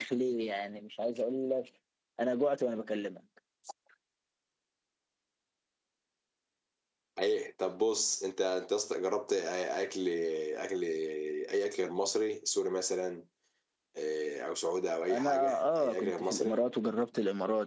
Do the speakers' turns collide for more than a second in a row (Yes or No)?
Yes